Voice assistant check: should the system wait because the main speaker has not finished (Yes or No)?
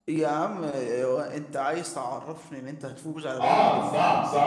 No